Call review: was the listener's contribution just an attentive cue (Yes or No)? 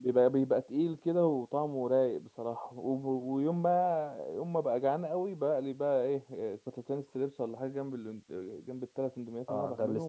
No